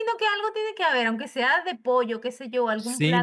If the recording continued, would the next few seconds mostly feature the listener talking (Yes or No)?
Yes